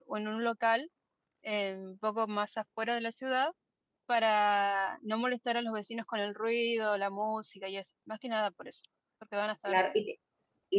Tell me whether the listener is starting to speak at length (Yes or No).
Yes